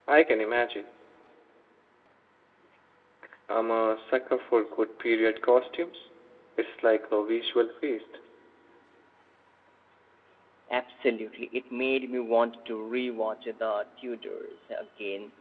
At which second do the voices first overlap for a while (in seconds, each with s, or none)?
none